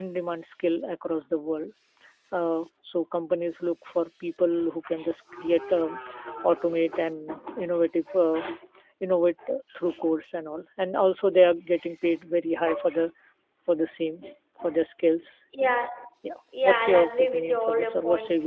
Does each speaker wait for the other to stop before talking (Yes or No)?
No